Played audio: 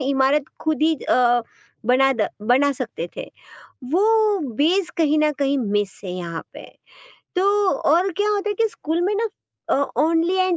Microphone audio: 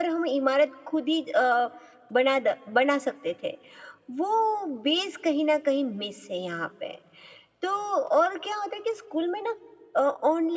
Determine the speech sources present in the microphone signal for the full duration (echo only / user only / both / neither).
echo only